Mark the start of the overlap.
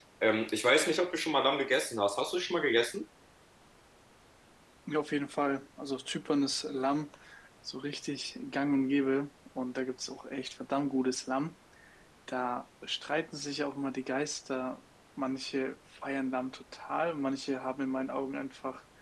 none

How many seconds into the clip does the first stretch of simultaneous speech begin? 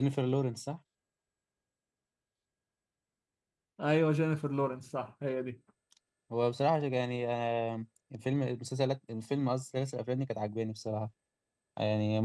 none

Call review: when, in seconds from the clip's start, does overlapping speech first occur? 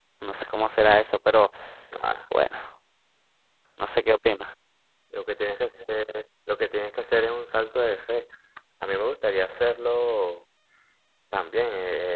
none

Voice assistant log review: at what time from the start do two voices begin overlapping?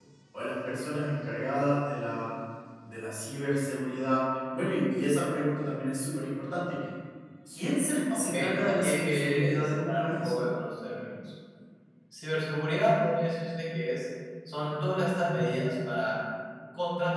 8.1 s

